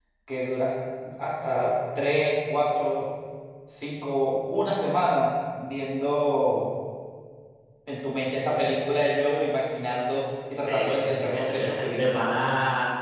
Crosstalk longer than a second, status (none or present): present